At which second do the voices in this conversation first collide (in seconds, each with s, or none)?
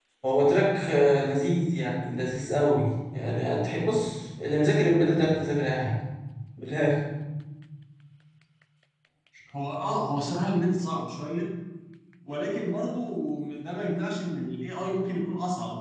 none